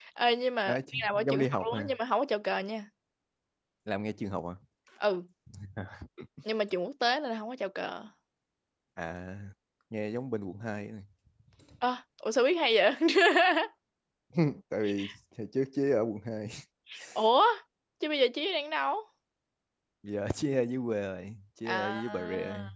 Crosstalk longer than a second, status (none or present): present